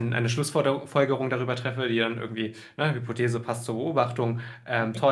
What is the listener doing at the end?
listening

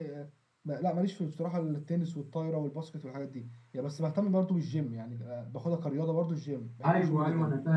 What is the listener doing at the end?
taking over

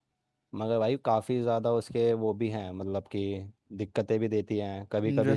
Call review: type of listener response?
listening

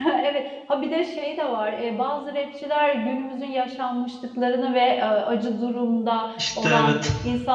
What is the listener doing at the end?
listening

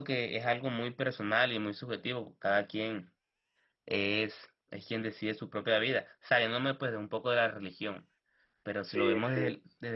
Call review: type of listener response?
listening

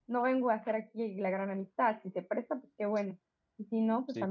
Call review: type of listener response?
listening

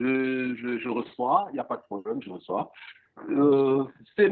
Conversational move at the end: listening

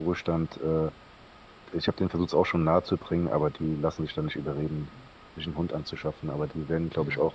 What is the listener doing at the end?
listening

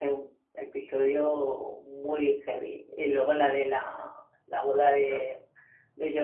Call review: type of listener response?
listening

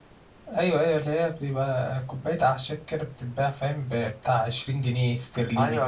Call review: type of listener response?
taking over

